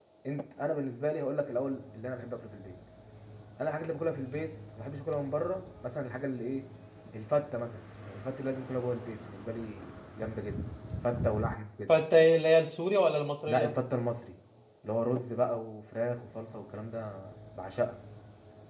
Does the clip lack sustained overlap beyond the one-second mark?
Yes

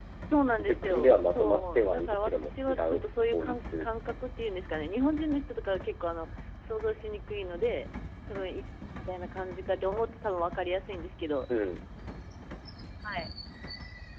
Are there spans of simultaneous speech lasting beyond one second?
Yes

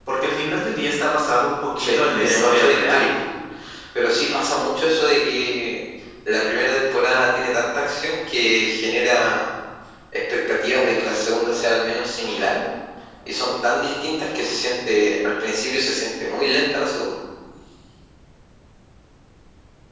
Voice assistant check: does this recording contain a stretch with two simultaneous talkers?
Yes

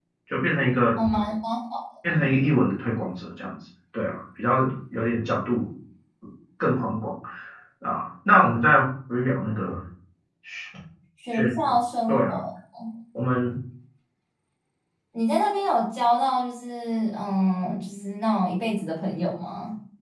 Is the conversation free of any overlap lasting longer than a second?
Yes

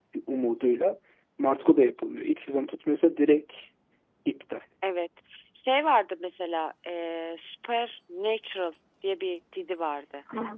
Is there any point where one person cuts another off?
No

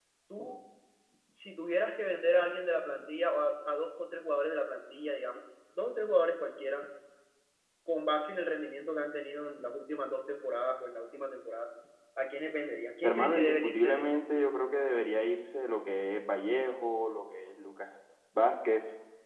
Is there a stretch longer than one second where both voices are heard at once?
Yes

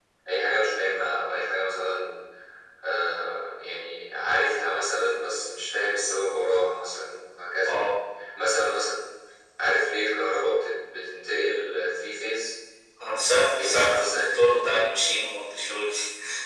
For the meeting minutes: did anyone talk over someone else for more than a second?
Yes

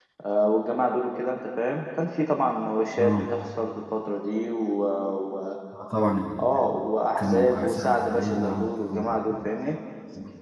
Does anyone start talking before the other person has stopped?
Yes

